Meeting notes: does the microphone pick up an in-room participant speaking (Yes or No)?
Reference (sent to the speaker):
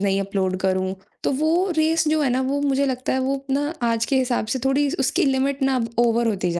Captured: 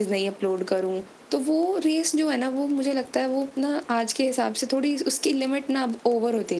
No